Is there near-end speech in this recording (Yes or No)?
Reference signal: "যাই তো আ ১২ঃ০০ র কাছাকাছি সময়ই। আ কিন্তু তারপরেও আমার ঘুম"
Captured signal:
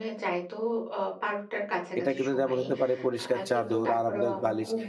Yes